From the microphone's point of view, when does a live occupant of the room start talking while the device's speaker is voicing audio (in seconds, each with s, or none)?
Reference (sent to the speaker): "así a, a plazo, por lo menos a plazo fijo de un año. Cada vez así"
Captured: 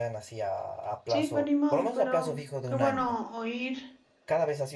1.0 s